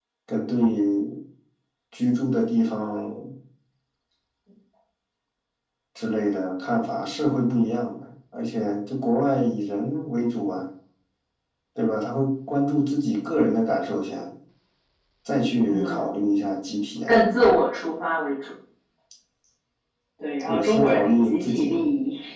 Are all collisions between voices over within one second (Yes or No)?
No